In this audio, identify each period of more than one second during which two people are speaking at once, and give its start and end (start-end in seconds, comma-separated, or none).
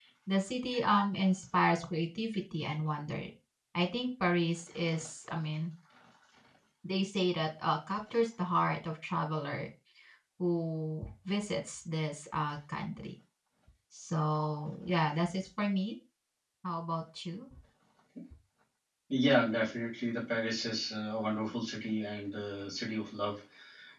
none